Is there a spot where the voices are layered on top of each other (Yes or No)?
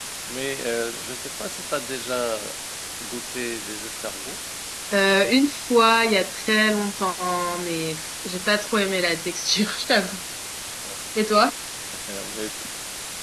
No